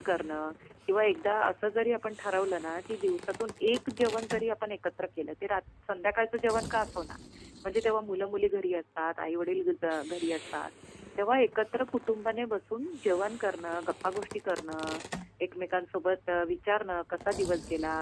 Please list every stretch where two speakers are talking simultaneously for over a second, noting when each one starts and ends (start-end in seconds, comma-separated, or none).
none